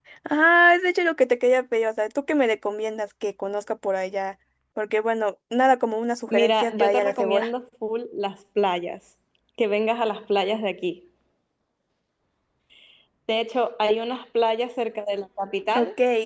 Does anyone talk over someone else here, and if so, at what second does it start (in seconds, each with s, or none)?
6.3 s